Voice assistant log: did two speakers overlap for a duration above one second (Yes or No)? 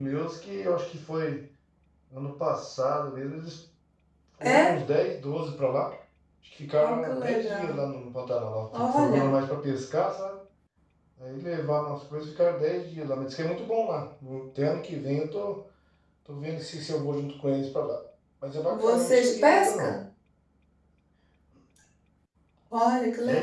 Yes